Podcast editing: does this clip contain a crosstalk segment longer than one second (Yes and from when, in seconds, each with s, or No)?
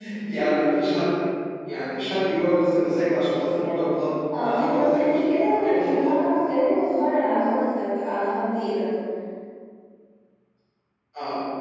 Yes, from 4.3 s